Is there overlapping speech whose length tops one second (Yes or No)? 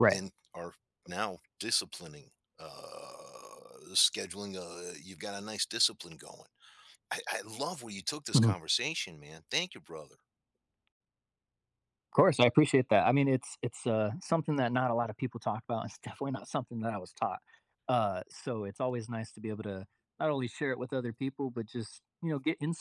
No